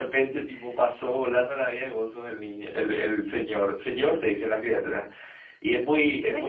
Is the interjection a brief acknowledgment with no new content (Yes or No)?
Yes